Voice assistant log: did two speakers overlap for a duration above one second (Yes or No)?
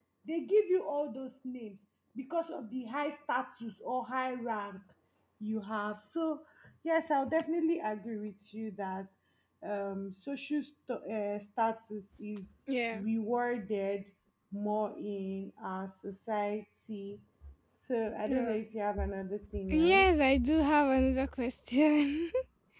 No